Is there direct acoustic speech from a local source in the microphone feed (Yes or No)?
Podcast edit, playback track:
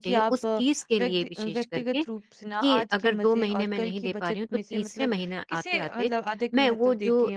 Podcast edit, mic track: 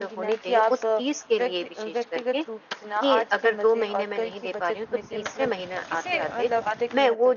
No